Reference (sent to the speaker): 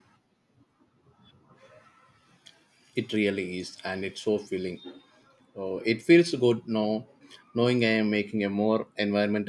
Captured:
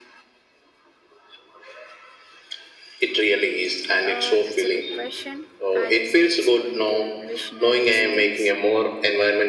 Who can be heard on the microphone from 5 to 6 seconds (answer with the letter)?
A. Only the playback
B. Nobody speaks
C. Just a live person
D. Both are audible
D